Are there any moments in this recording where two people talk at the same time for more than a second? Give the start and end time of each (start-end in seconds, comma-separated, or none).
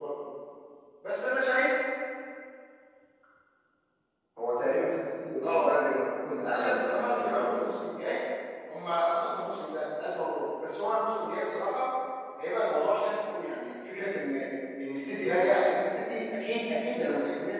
6.4-7.8